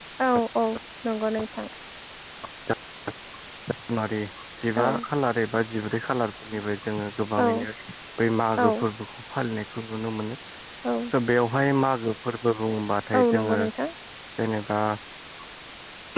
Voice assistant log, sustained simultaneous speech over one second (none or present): none